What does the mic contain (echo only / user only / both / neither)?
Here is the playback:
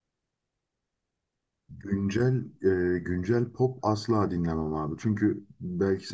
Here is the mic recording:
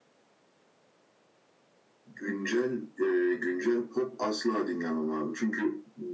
echo only